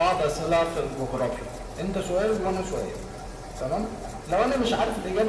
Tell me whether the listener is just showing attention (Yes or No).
Yes